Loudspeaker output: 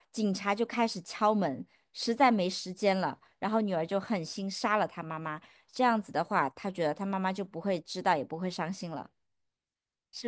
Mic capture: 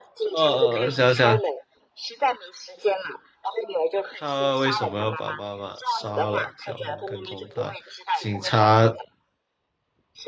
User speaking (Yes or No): Yes